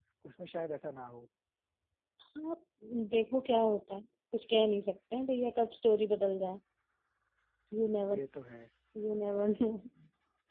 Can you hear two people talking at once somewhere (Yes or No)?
No